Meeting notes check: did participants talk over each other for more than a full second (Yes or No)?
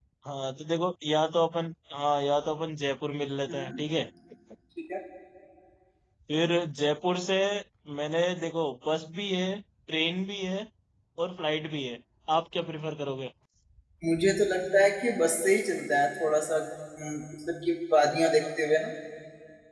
No